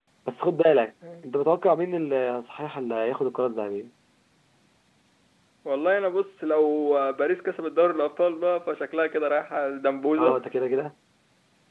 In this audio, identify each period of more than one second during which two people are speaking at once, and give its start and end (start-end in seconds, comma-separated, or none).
none